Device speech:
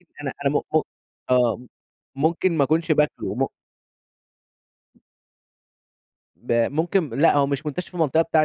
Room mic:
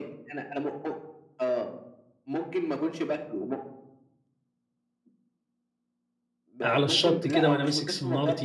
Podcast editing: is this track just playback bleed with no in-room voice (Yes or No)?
No